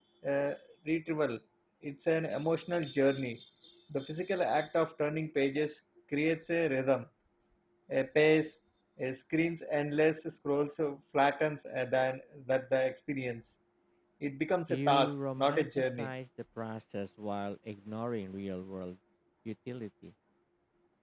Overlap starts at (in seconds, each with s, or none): 14.7 s